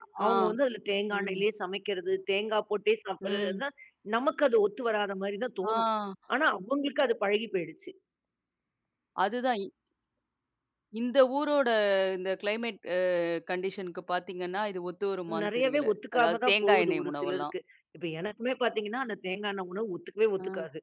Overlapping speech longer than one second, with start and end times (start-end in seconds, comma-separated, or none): 15.4-17.4